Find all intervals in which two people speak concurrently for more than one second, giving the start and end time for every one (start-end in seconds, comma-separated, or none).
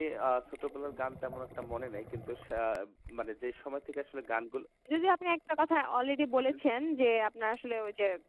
none